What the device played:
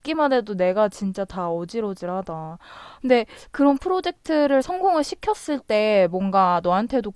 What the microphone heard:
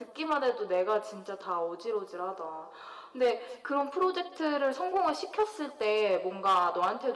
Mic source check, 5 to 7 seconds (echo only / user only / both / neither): echo only